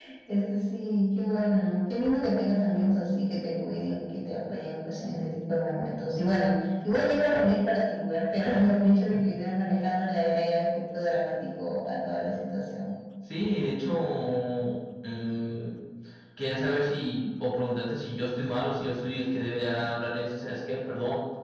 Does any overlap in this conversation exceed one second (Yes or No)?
No